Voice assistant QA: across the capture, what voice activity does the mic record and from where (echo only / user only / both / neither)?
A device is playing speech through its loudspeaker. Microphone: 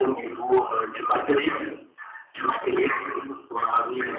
echo only